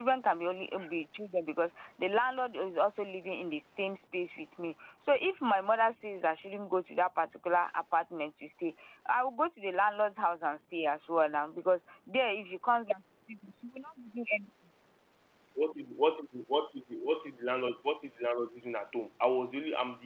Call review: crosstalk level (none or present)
none